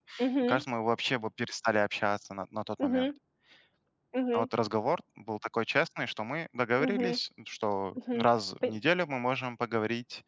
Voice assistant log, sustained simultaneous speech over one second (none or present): none